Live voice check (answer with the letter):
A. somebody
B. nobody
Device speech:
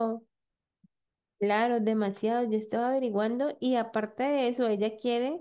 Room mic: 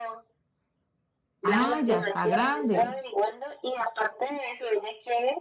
A